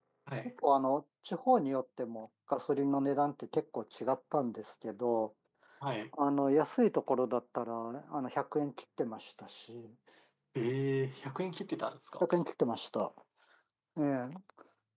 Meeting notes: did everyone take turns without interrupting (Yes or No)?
Yes